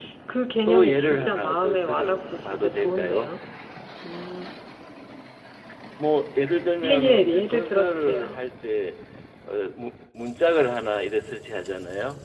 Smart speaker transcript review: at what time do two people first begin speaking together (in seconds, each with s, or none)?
0.7 s